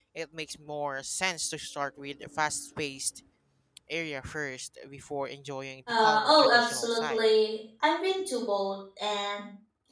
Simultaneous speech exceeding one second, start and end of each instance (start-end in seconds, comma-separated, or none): 5.9-7.2